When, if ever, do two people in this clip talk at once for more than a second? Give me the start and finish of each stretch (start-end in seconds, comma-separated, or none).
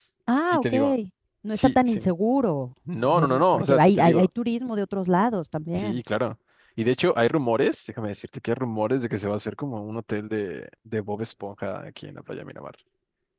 2.9-4.3